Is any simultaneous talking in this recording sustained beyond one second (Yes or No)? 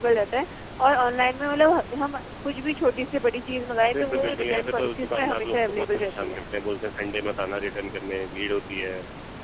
Yes